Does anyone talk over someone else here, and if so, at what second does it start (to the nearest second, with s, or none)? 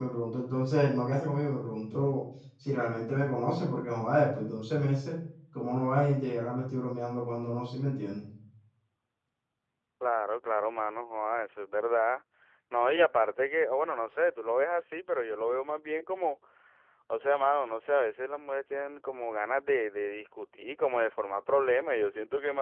none